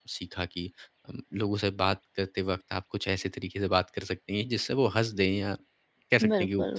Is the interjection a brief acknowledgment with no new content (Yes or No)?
No